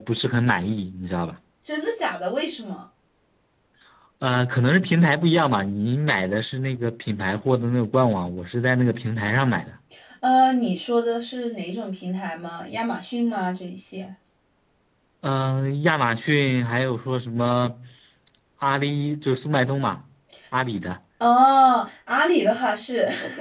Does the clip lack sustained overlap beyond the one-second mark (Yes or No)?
Yes